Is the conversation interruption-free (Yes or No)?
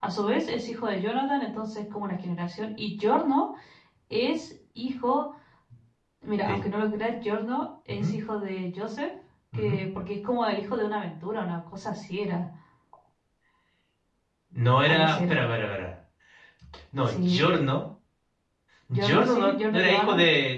No